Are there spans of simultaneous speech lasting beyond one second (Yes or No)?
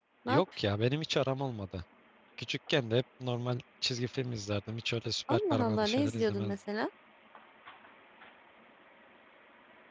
Yes